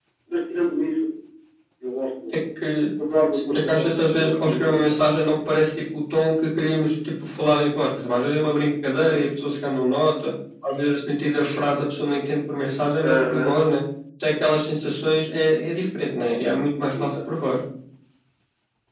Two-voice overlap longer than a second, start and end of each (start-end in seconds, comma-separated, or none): 3.5-4.8